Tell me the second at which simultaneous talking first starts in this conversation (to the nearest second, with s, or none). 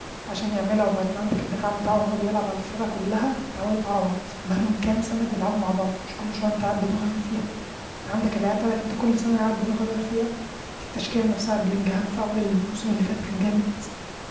none